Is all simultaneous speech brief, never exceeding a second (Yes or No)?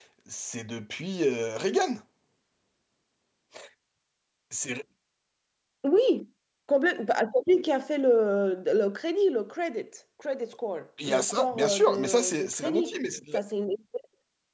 No